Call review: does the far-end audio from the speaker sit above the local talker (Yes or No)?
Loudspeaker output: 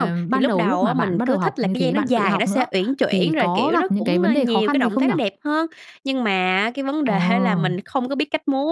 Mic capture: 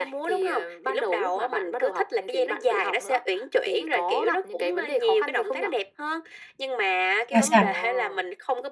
No